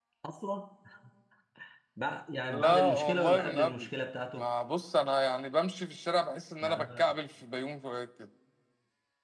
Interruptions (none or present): present